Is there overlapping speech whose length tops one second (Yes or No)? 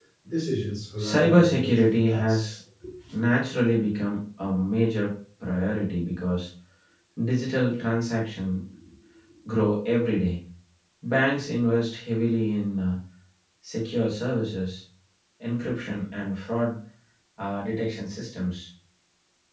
Yes